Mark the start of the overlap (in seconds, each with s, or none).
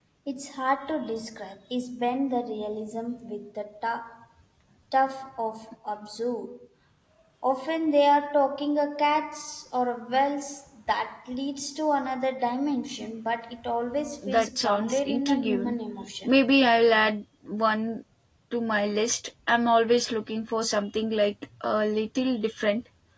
14.2 s